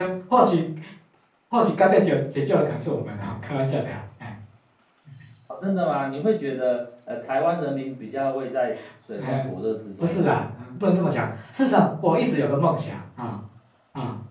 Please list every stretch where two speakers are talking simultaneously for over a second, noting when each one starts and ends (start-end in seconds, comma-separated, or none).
none